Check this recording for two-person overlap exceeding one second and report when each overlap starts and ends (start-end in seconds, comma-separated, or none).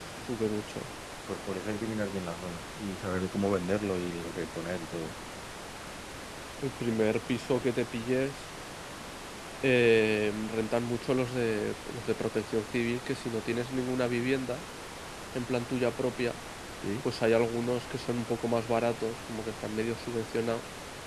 none